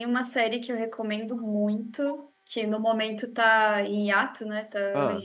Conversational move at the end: listening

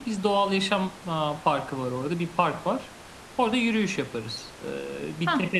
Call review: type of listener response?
listening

